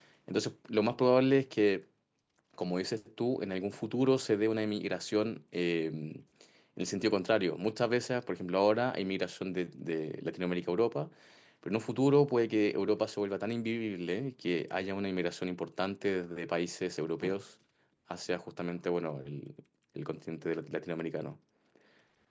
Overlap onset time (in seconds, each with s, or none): none